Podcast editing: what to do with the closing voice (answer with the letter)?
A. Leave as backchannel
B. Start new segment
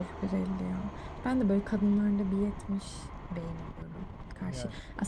A